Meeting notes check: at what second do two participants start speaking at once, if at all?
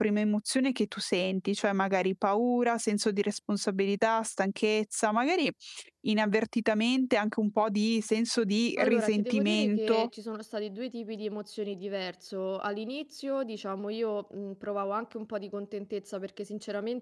9 s

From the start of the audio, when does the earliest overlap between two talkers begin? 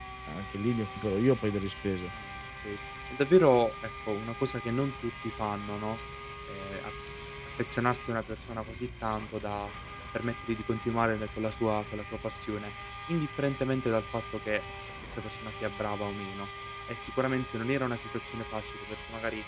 none

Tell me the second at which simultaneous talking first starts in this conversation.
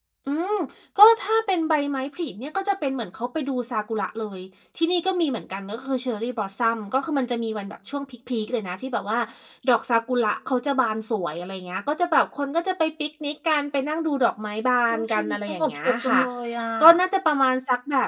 15 s

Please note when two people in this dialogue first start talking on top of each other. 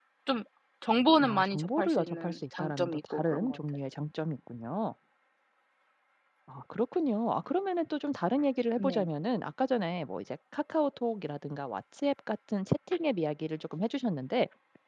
1 s

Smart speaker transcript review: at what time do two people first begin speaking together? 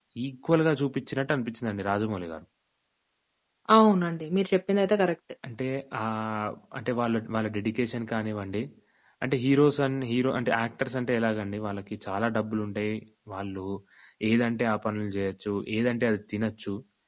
none

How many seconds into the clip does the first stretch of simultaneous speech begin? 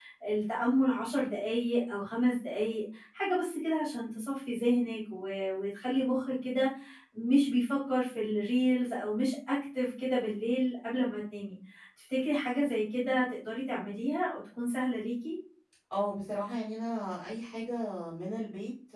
none

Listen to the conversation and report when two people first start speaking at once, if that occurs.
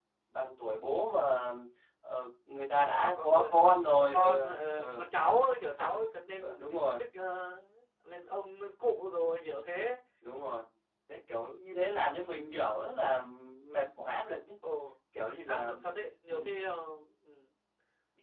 3 s

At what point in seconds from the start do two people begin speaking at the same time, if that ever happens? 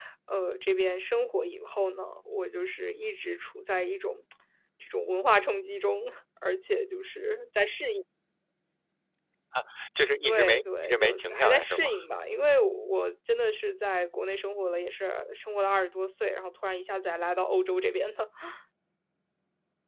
10 s

